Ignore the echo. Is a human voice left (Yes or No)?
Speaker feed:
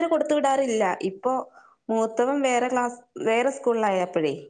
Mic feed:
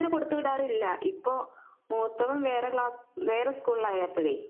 No